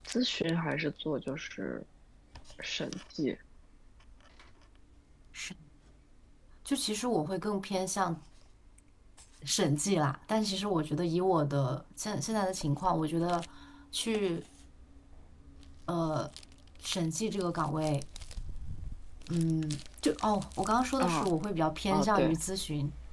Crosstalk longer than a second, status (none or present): none